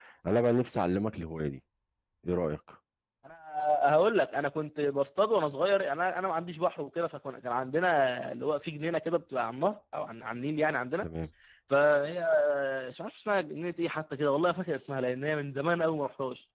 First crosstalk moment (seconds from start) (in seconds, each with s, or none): none